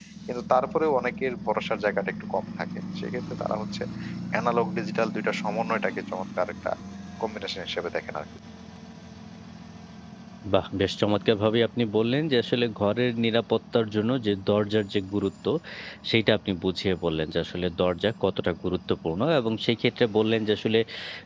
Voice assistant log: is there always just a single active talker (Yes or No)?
Yes